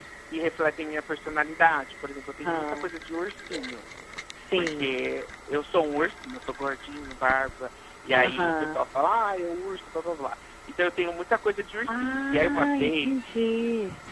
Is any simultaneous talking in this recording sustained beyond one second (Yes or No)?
Yes